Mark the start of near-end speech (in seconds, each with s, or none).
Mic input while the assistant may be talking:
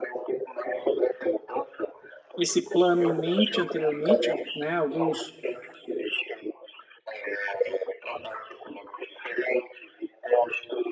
2.4 s